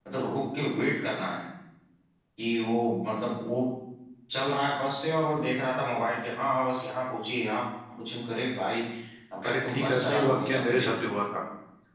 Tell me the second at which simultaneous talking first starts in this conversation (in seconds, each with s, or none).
9.4 s